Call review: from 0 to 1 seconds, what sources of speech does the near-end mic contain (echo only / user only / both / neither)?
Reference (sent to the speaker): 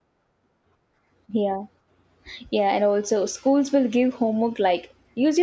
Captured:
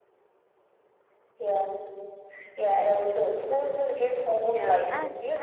neither